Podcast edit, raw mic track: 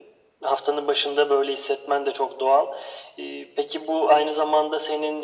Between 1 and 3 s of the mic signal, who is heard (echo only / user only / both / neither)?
echo only